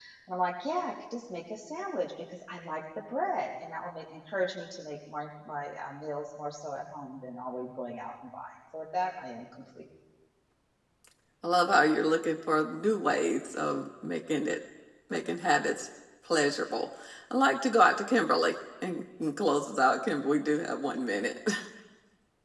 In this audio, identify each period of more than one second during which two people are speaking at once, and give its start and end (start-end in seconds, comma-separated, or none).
none